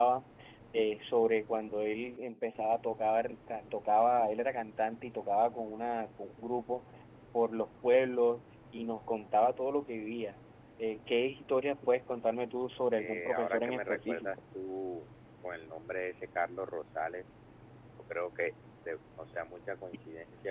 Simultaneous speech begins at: 13 s

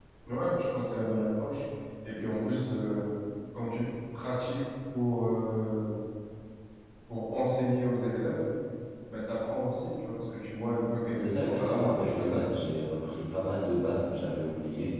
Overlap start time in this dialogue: 11 s

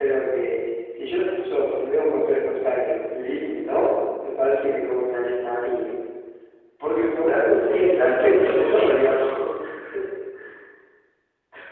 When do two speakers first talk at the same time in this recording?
8 s

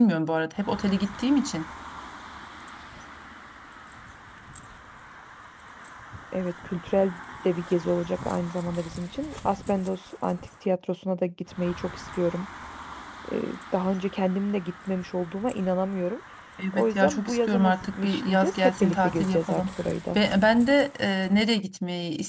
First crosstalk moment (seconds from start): 17 s

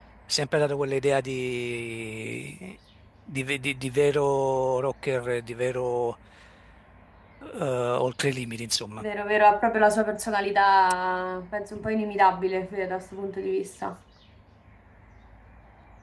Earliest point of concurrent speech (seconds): none

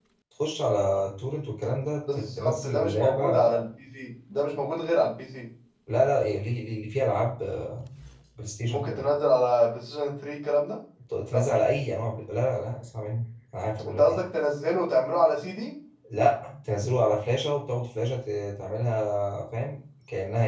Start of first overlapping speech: 2 s

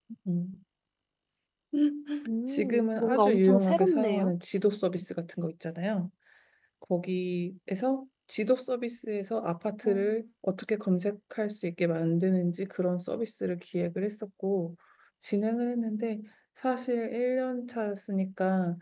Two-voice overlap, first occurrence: 2 s

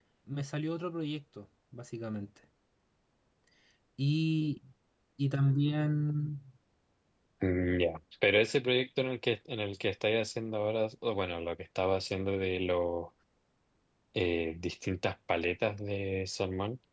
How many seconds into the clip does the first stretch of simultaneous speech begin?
none

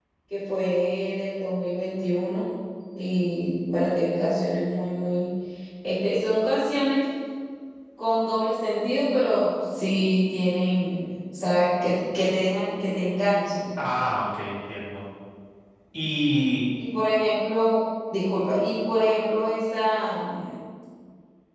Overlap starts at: none

